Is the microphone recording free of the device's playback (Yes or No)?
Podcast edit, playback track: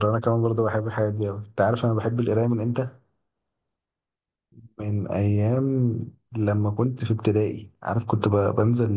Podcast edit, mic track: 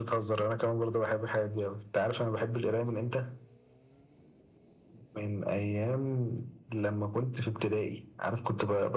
No